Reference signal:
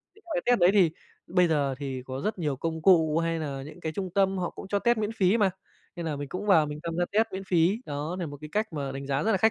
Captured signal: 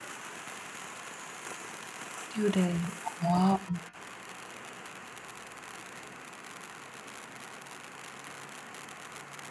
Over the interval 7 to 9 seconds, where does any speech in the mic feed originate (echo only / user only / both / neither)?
neither